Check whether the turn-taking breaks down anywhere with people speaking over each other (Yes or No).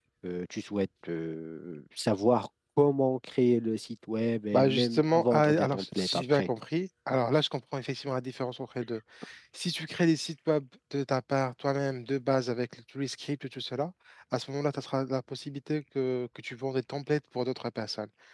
Yes